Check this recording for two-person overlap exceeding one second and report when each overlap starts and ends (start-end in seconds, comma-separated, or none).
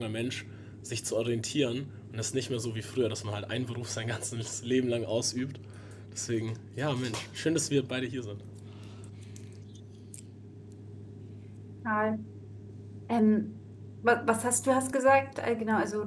none